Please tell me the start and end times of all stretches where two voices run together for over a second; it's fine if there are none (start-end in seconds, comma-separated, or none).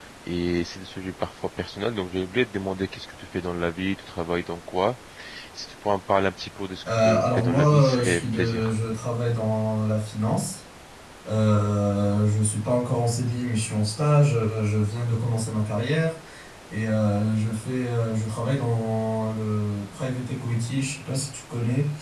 6.9-8.7